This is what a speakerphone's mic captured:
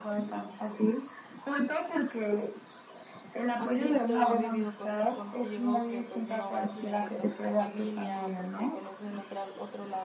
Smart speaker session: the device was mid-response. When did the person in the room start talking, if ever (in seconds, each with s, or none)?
3.6 s